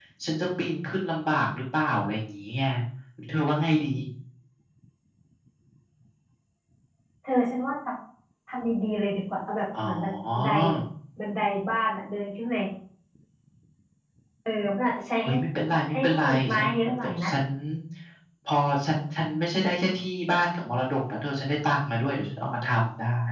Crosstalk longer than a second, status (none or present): present